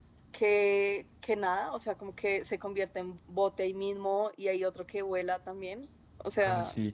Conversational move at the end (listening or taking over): taking over